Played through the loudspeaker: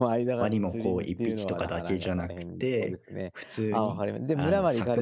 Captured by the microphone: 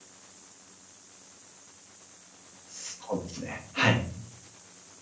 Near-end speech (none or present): present